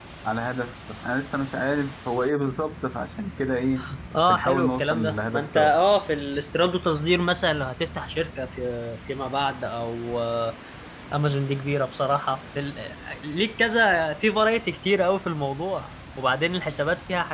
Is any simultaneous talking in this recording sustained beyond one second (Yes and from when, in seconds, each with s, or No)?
Yes, from 4.3 s